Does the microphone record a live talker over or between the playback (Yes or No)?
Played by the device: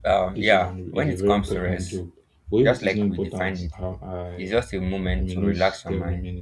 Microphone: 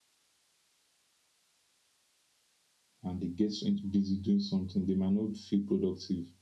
Yes